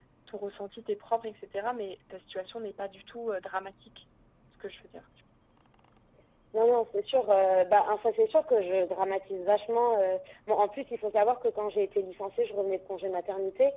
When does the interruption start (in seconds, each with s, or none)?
none